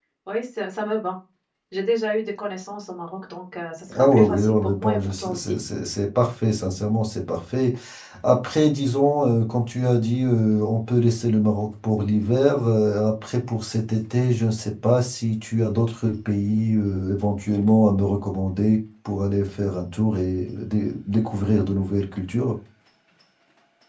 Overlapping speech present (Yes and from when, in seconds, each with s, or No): Yes, from 3.9 s